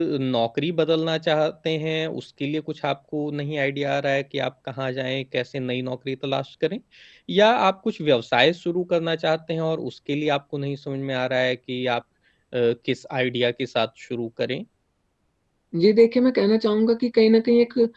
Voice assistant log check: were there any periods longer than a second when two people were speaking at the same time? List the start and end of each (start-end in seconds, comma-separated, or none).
none